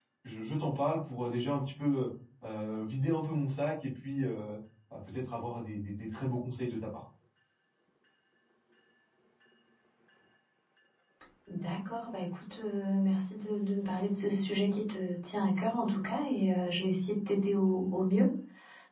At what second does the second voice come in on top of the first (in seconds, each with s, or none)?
none